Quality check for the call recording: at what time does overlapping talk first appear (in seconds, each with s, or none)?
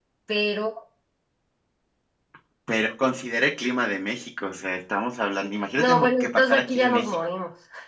5.8 s